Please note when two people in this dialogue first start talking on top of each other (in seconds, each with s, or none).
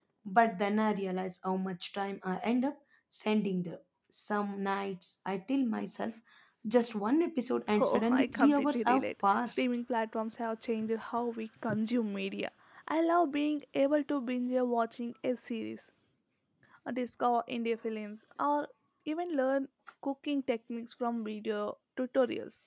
7.7 s